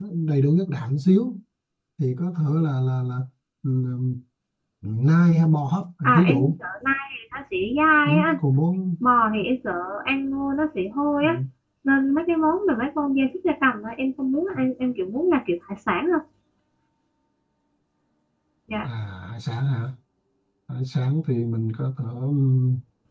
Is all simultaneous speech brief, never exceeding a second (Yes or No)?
Yes